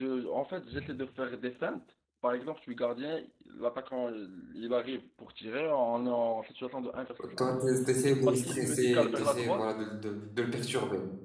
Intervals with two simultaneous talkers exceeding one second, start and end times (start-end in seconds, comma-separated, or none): 8.2-9.7